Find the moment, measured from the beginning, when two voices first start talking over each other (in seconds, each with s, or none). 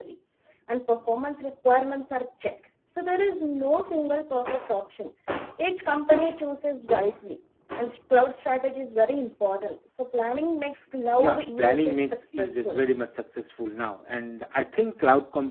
11.2 s